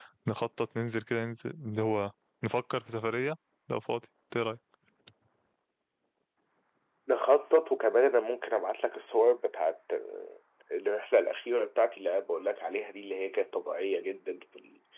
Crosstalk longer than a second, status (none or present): none